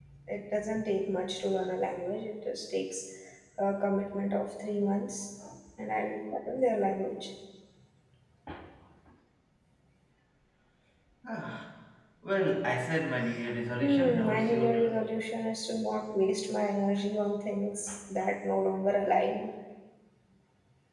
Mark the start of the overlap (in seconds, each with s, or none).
13.8 s